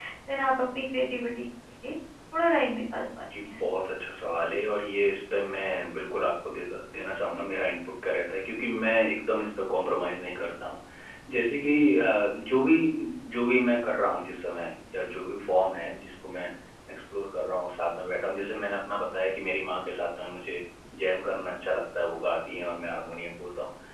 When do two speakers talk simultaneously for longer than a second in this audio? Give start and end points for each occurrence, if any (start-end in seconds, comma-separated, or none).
none